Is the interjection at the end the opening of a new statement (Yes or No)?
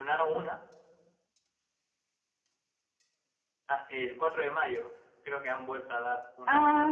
Yes